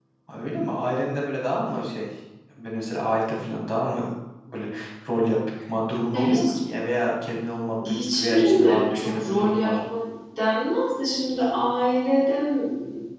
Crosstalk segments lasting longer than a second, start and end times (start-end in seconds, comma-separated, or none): 7.9-9.7